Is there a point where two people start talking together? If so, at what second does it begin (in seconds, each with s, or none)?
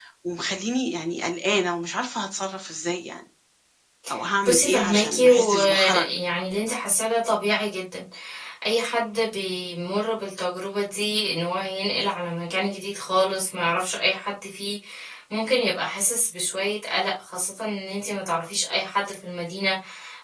4.5 s